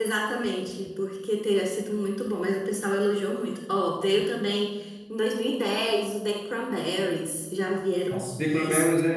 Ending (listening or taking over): taking over